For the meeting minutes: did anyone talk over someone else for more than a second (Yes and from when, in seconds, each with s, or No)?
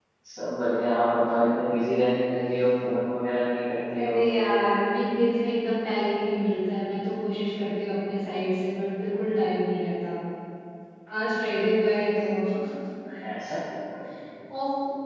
No